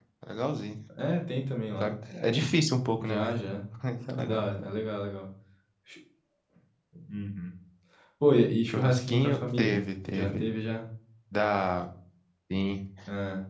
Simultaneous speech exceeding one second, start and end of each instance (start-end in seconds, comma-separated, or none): 8.7-10.4